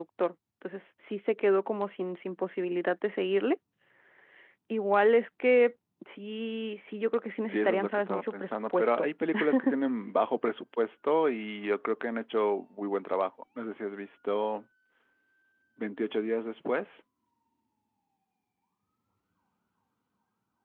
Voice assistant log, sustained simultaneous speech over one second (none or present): present